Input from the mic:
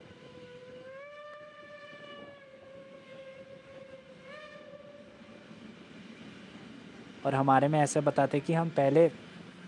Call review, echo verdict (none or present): none